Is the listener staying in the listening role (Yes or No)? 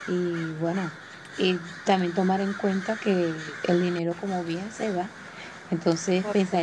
Yes